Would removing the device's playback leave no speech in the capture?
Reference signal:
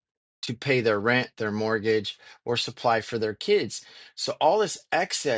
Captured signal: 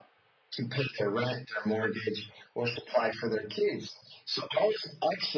Yes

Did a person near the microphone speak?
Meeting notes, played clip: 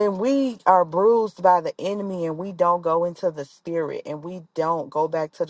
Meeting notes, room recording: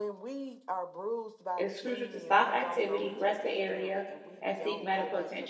Yes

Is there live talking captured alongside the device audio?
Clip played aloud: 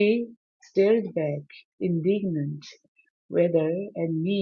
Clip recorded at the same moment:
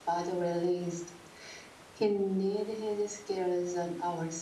Yes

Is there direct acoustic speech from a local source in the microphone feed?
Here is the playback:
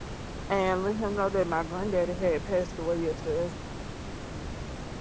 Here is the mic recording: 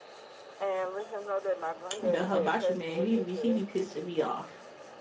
Yes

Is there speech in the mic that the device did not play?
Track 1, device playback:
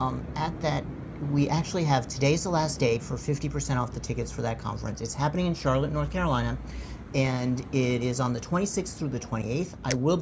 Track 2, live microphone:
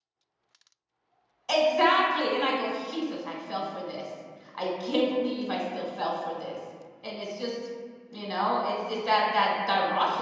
Yes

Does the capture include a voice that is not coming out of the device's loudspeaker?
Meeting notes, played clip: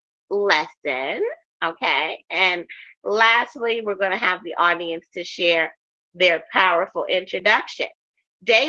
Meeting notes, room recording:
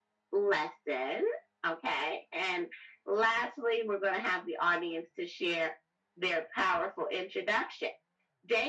No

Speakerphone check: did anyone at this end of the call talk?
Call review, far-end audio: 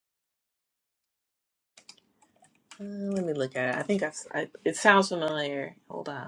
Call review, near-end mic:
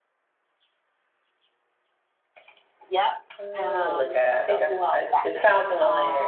Yes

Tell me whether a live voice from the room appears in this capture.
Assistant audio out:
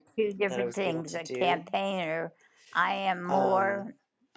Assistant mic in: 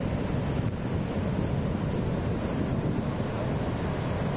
No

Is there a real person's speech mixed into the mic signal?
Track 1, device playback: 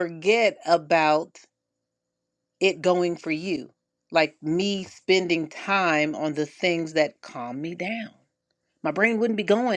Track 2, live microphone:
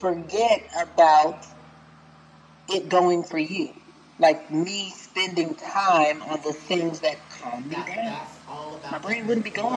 Yes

